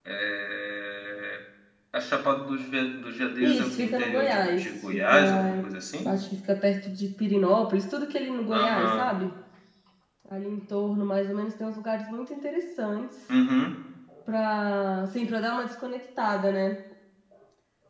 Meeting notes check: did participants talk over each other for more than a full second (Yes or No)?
Yes